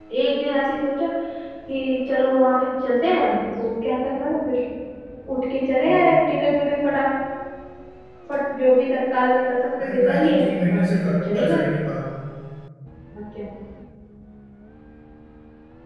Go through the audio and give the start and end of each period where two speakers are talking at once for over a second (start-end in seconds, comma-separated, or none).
9.8-11.6